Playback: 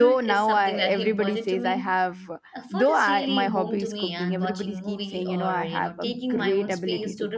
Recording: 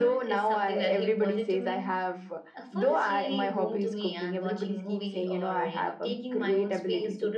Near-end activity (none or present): none